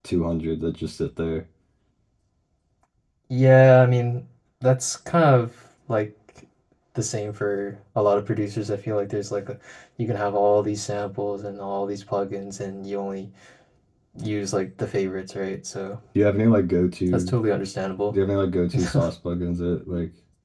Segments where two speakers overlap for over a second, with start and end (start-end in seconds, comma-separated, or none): none